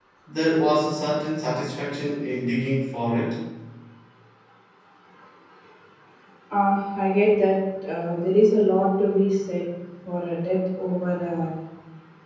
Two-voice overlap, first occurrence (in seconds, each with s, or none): none